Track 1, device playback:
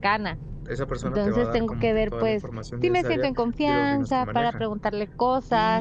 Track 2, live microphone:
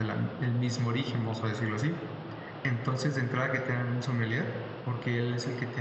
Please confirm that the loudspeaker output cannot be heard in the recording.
Yes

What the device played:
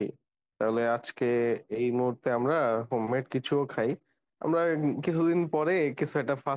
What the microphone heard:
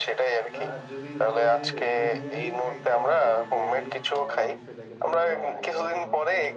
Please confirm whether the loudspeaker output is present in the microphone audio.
Yes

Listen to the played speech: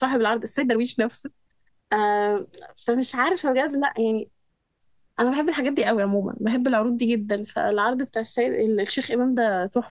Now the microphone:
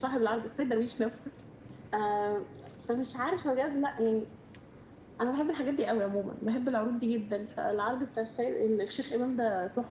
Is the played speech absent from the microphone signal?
No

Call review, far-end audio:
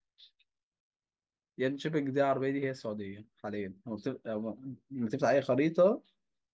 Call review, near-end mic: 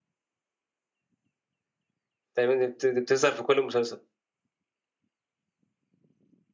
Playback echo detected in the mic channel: No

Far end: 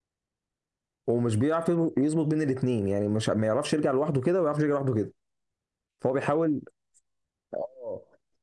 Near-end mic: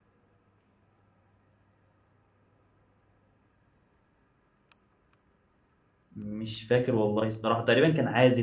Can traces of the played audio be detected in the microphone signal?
No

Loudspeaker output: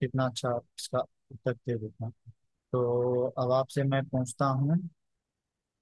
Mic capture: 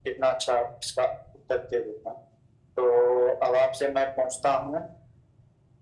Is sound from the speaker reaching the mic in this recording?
Yes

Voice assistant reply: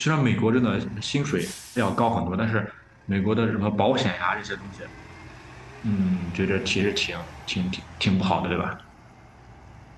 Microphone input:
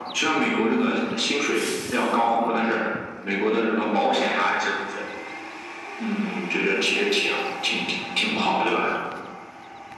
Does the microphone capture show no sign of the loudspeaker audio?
No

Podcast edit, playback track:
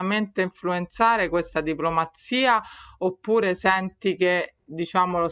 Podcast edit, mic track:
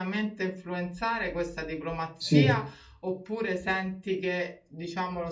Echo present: Yes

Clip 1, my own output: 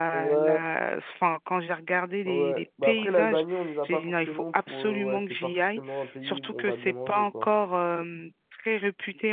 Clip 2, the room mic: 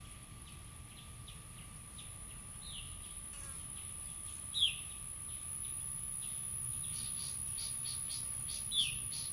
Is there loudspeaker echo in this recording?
No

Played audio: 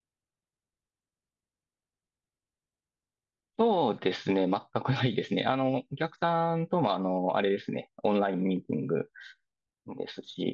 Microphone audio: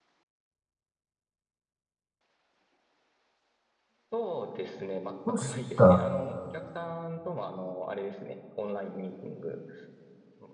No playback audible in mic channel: No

